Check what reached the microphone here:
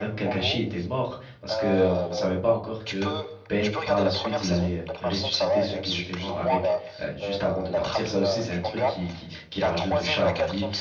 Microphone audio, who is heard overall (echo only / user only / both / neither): both